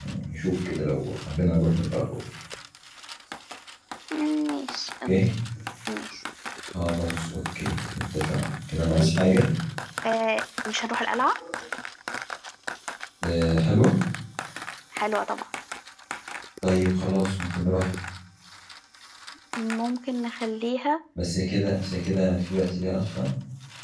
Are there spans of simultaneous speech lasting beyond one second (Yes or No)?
No